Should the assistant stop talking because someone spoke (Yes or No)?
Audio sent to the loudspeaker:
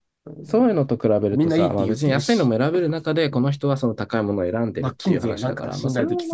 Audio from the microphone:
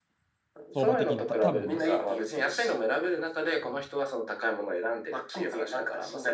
Yes